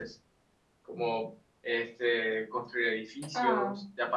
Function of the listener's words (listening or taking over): listening